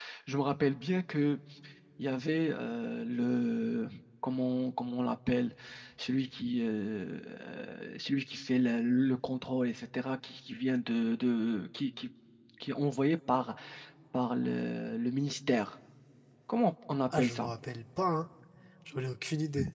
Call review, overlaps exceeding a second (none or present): none